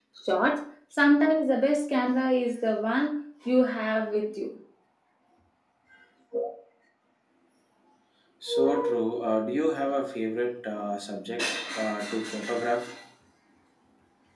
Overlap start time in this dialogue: none

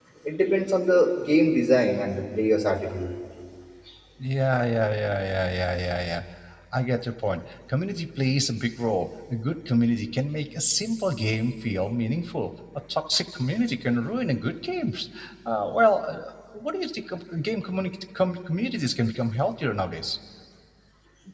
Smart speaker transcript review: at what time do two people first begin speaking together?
none

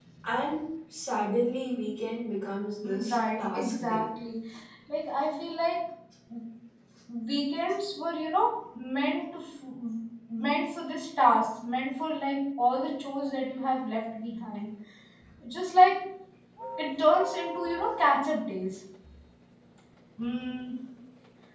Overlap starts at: 2.8 s

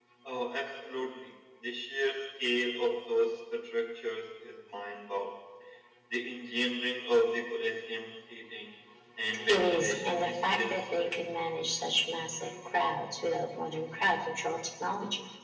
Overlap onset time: 9.5 s

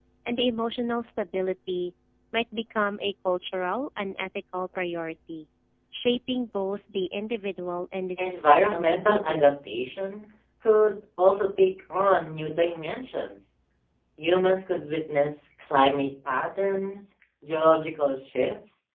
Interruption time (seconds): 8.2 s

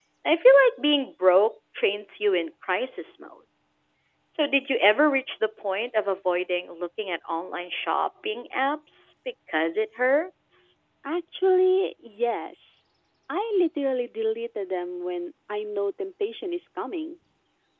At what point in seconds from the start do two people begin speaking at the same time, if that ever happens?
none

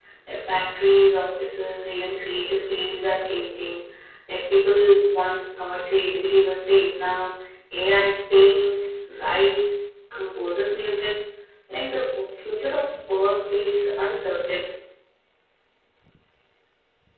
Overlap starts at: none

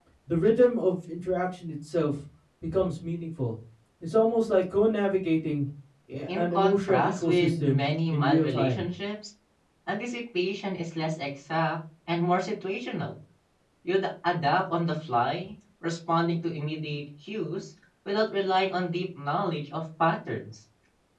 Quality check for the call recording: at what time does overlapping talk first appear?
6.3 s

